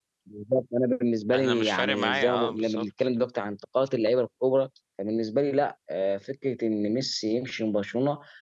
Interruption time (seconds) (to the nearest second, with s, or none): 1 s